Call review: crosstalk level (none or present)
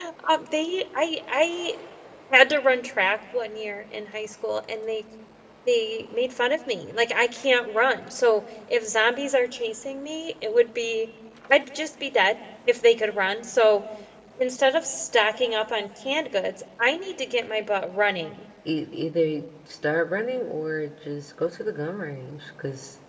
none